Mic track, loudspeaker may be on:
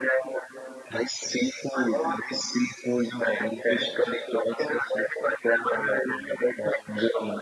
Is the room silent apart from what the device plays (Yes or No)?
Yes